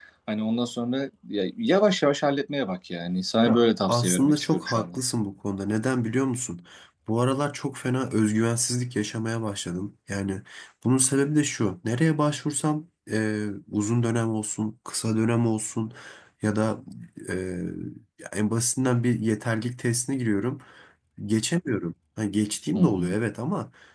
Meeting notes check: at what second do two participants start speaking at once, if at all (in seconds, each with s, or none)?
3.5 s